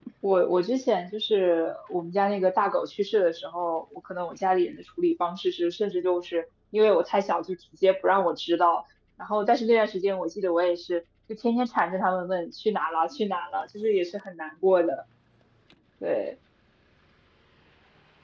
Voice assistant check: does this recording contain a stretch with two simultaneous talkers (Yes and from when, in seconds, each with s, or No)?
No